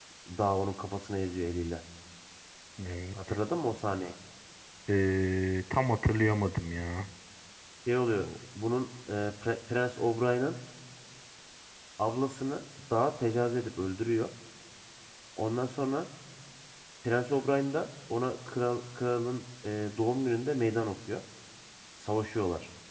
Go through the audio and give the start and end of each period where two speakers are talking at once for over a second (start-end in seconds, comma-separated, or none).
none